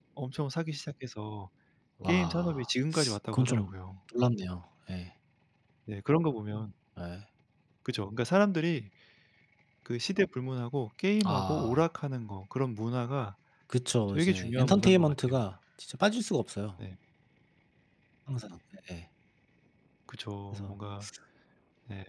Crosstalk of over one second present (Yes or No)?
Yes